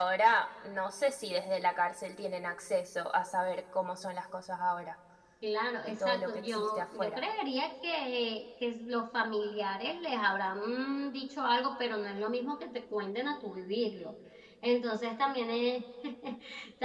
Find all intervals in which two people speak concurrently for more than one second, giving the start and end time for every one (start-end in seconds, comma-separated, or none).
5.8-7.2